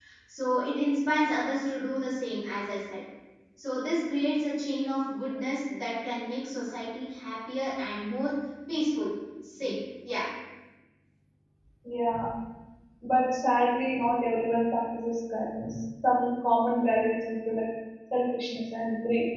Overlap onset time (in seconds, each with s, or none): none